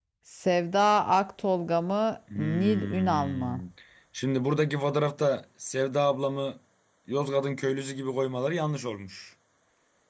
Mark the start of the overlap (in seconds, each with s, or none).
2.3 s